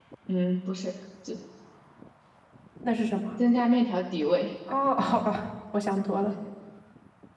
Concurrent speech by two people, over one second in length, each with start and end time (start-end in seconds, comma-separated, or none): none